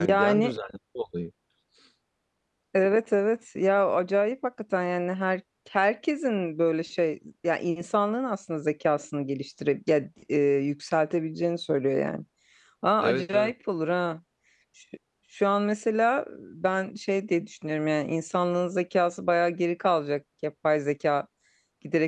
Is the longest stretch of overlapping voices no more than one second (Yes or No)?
Yes